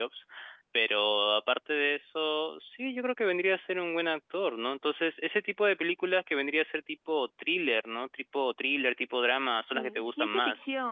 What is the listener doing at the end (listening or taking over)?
taking over